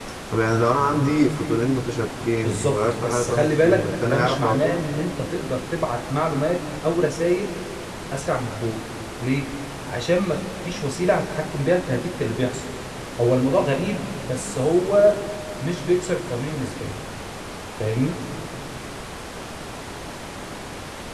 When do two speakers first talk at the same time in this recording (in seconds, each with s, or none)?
2.4 s